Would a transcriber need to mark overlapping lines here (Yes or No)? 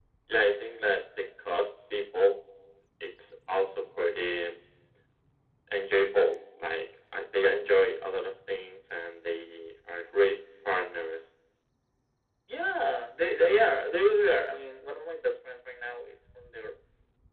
No